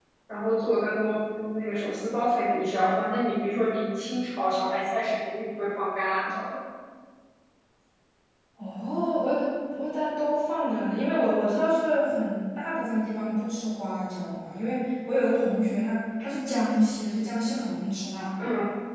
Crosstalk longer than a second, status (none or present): none